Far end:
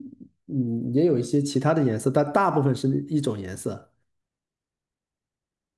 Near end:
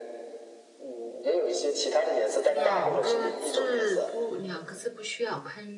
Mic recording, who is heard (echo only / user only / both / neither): both